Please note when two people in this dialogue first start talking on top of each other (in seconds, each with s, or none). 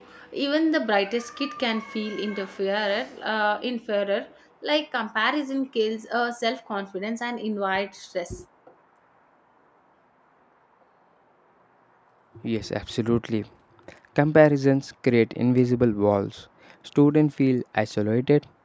none